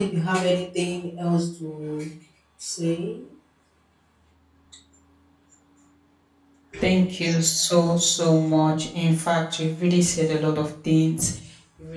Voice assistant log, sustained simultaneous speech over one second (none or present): none